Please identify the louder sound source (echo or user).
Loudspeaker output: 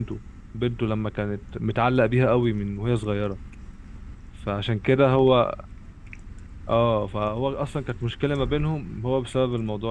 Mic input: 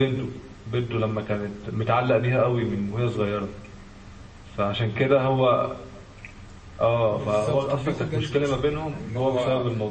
echo